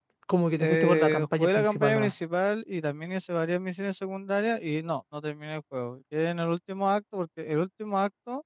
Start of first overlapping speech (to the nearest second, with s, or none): 1 s